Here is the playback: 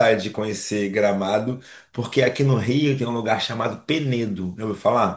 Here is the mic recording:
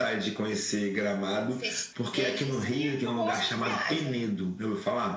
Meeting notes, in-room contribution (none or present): present